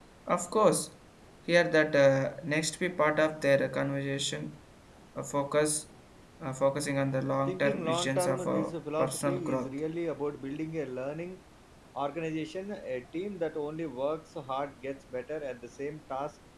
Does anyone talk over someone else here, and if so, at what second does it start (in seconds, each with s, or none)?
7.4 s